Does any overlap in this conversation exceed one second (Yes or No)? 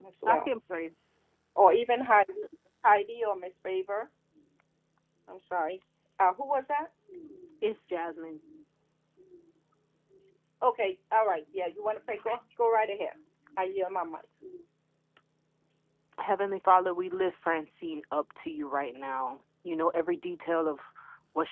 No